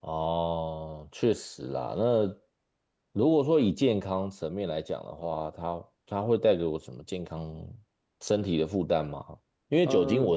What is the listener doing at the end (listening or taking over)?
listening